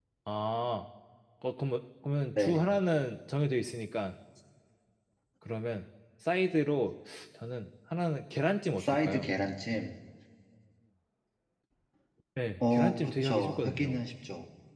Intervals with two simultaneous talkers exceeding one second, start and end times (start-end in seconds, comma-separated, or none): 12.6-14.0